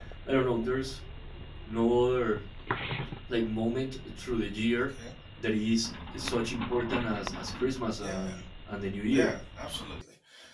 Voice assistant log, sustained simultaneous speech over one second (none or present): none